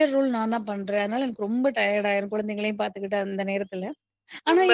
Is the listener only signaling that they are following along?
Yes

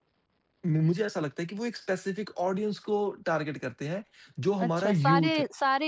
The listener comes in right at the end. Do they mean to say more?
Yes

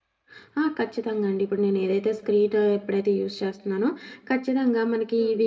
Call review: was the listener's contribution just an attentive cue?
Yes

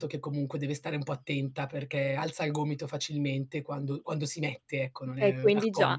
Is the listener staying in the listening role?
No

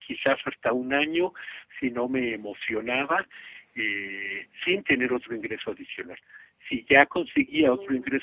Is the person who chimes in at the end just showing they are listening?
Yes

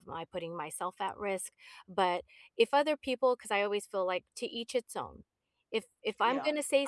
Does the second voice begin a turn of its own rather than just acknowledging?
Yes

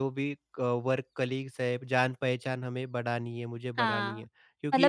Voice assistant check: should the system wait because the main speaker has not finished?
No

